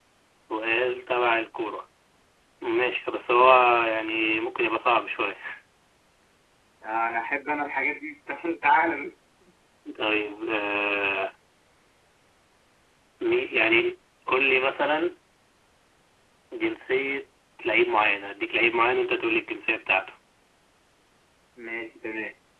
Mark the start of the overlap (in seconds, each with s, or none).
none